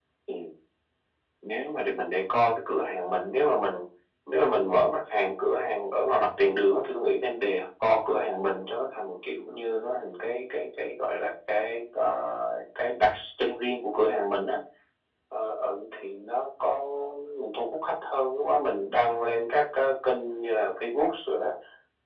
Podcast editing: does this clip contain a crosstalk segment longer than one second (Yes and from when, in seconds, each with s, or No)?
No